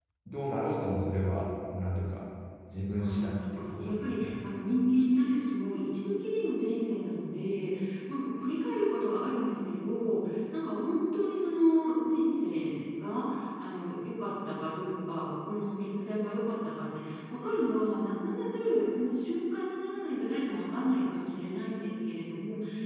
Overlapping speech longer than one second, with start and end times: 3.0-4.4

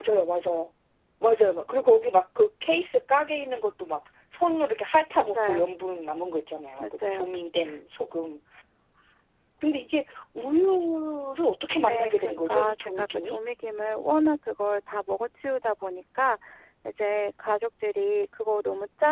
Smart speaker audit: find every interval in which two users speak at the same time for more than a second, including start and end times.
11.8-13.4

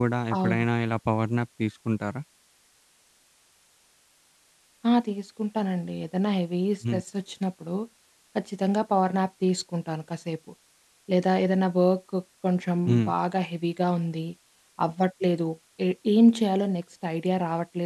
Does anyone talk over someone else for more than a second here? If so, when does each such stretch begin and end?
none

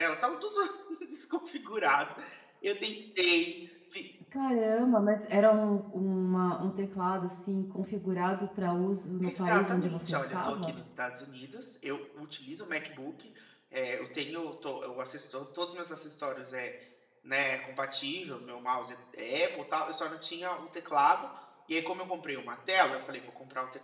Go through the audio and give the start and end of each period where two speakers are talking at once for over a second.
9.2-10.8

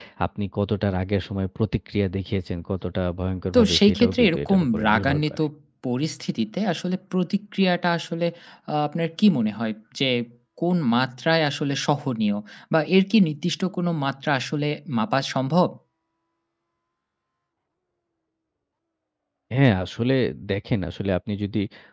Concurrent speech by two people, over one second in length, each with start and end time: 3.5-5.4

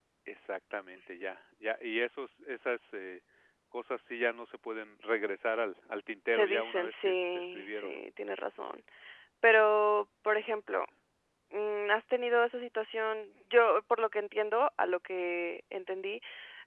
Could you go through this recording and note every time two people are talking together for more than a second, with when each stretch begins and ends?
6.3-8.0

